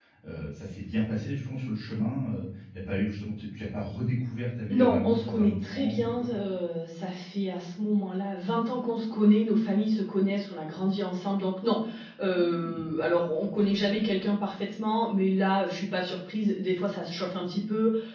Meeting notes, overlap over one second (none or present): present